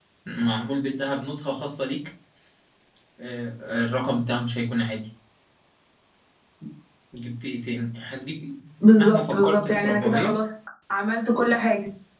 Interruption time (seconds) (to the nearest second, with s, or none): 9 s